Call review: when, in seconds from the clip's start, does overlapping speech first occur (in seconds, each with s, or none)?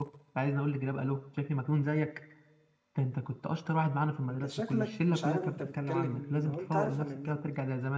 4.3 s